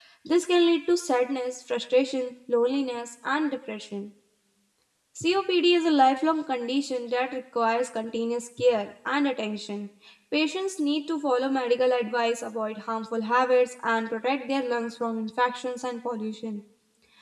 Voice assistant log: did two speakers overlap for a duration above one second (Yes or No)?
No